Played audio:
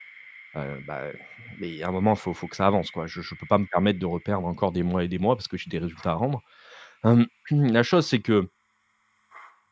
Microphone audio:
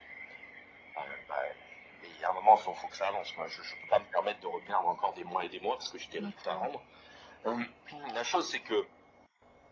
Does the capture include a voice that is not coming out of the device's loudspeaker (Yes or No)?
Yes